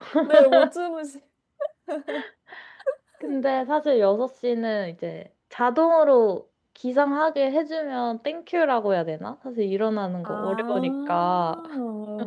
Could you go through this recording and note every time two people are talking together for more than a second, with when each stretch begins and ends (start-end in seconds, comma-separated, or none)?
10.2-11.6